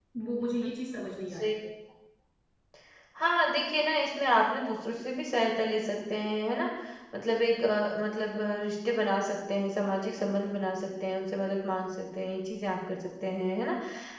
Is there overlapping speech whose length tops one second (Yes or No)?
No